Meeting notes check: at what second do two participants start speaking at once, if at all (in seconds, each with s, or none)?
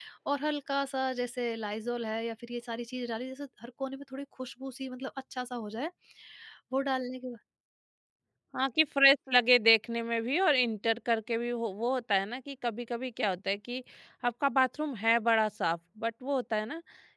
none